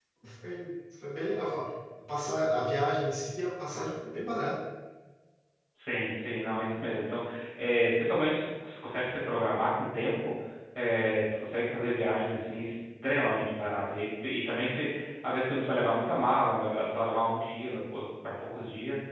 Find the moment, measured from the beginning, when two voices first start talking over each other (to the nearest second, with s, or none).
none